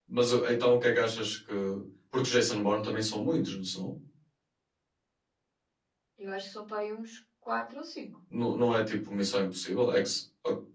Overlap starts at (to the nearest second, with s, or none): none